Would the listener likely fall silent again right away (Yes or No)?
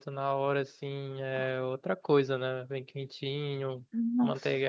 Yes